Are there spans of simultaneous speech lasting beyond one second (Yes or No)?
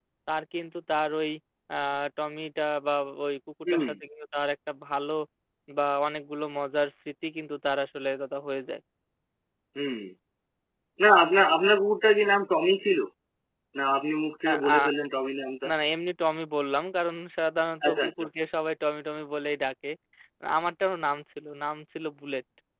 No